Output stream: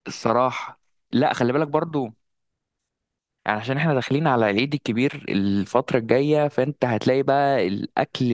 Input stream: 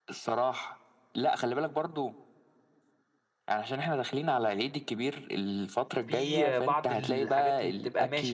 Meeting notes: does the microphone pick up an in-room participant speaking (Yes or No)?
Yes